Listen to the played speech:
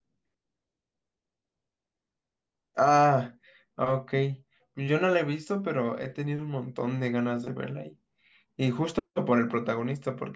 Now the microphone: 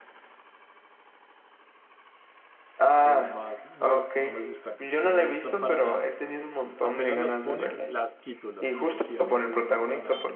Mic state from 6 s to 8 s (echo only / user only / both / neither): both